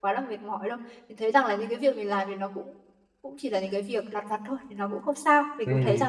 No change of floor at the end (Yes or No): No